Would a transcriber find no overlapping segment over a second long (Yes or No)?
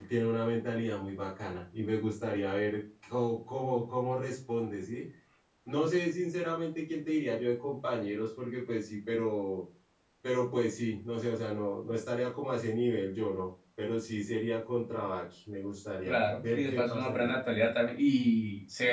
No